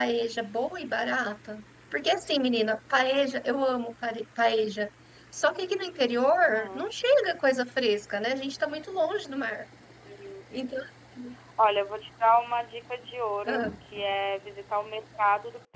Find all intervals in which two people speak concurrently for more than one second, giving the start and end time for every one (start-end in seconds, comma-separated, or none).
none